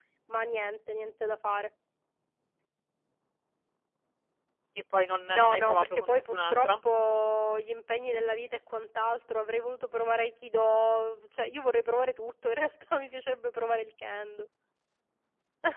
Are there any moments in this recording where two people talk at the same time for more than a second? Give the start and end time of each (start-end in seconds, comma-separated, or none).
5.3-6.7